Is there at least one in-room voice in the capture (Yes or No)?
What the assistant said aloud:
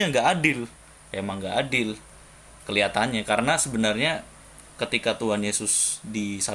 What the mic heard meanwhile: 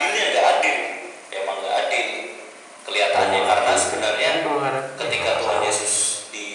Yes